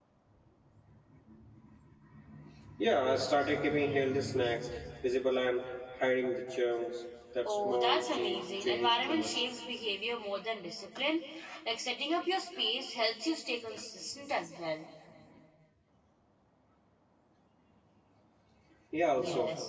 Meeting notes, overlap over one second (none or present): present